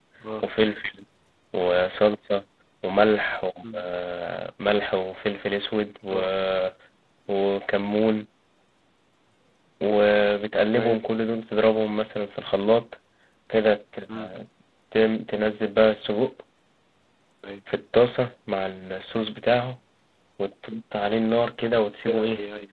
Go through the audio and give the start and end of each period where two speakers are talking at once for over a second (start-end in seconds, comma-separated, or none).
none